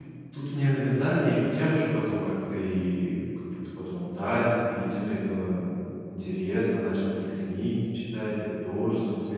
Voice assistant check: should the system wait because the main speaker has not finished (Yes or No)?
Yes